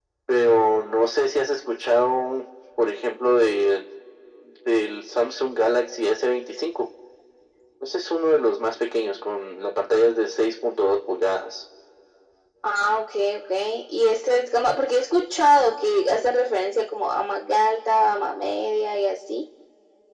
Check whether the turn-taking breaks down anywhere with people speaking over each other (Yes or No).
No